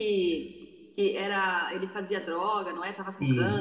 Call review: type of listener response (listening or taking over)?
taking over